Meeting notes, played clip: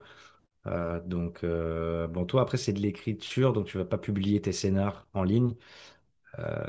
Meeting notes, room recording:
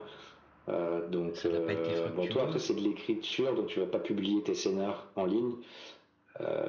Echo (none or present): present